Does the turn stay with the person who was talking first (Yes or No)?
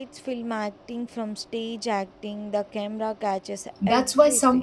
No